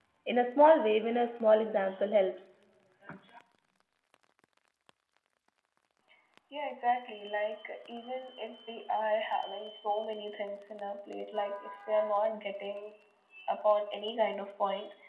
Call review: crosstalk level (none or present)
none